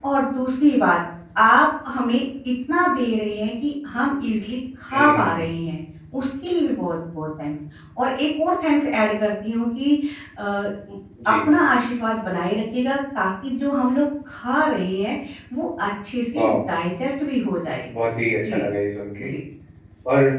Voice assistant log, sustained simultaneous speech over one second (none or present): none